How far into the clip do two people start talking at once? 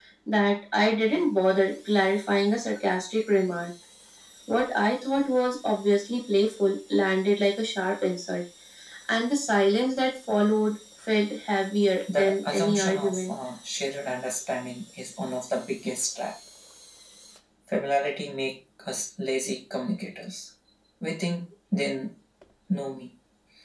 12.1 s

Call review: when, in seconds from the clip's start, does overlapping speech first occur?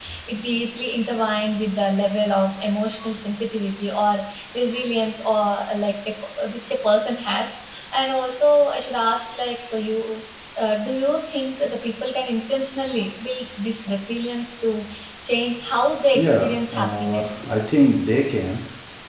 16.1 s

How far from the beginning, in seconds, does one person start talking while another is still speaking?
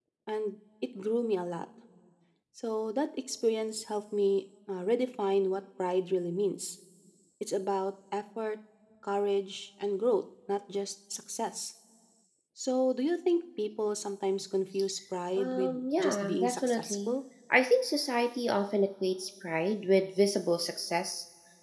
15.4 s

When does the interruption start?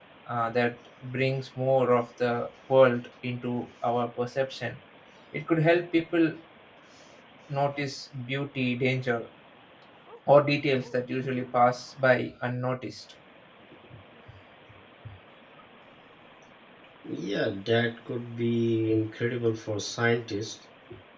none

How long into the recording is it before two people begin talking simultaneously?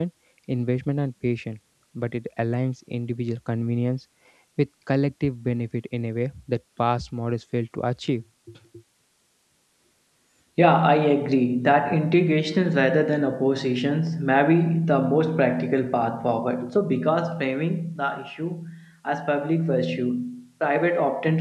none

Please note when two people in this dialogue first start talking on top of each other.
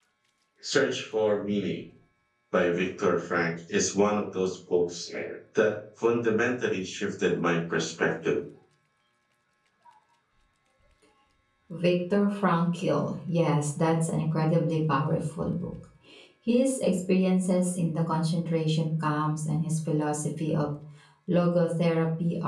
none

